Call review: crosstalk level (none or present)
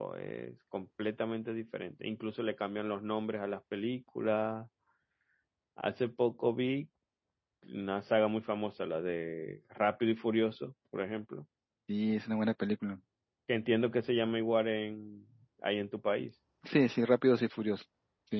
none